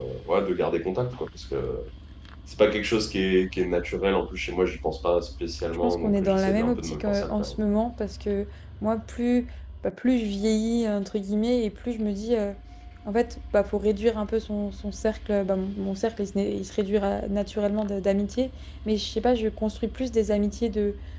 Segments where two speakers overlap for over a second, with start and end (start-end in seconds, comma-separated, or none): 5.8-7.5